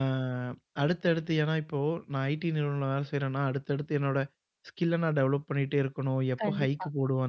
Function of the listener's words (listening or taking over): listening